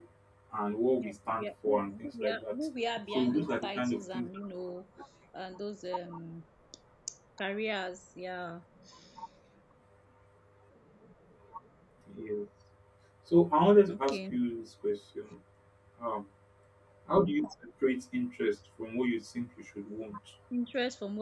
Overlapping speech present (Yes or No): Yes